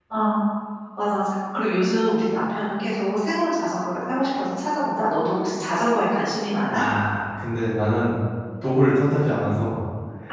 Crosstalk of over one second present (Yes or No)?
No